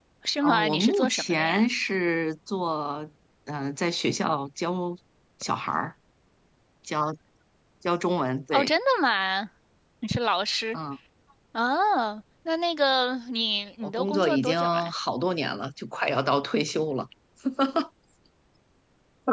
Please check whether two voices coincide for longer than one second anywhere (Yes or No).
Yes